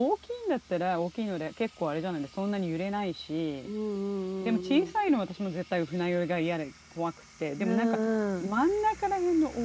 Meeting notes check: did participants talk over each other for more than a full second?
No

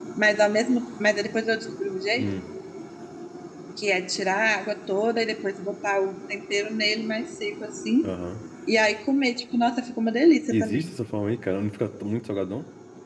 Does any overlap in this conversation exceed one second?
No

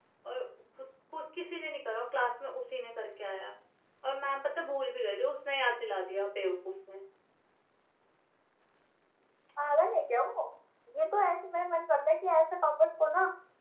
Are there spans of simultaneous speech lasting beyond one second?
No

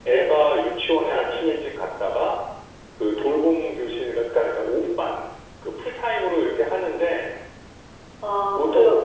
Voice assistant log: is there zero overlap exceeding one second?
Yes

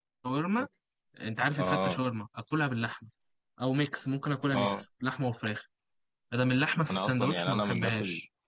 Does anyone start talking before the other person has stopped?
Yes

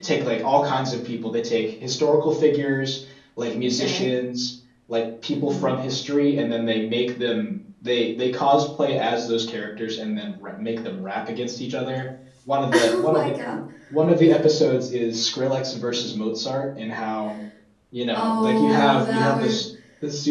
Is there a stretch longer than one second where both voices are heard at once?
Yes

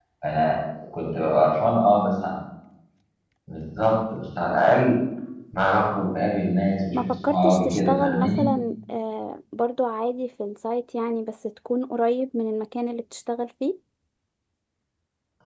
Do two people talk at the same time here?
Yes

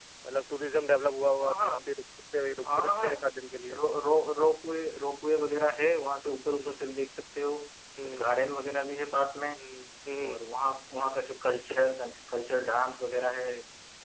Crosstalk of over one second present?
No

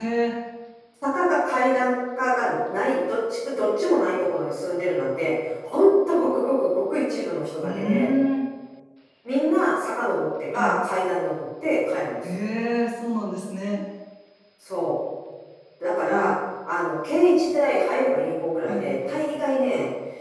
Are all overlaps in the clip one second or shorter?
Yes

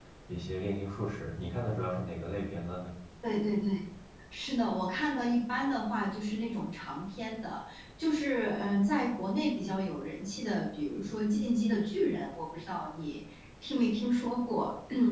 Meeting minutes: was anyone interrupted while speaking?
No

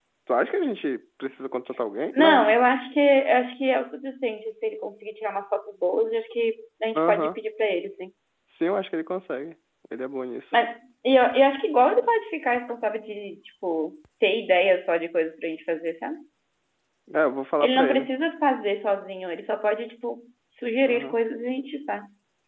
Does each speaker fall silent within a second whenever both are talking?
Yes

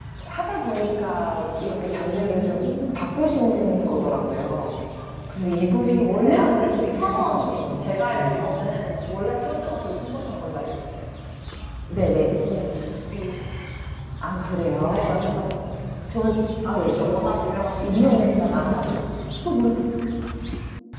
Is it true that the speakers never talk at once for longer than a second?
No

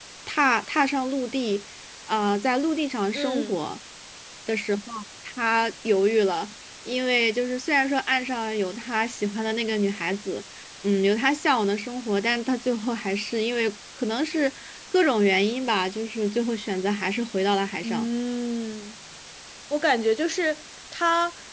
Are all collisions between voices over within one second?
Yes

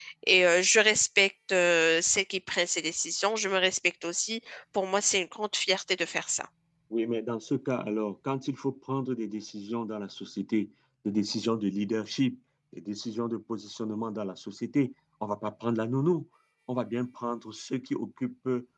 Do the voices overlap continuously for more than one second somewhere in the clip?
No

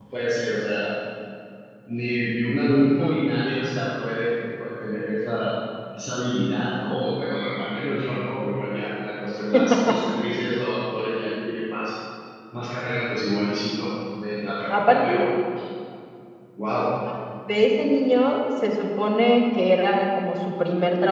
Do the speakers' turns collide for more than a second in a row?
No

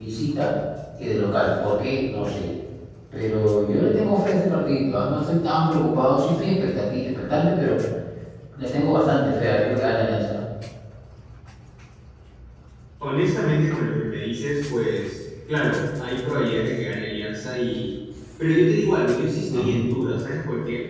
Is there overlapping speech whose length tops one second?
No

